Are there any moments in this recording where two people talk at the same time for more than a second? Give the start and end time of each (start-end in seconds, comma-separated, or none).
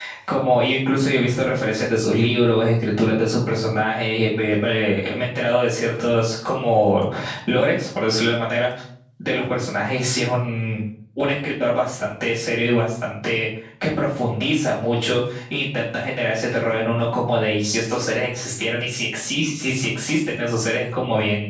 none